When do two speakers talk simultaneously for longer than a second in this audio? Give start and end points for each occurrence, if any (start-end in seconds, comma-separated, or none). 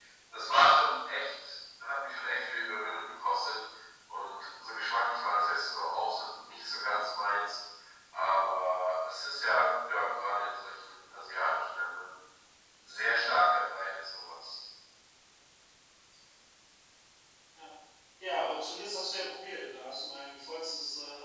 none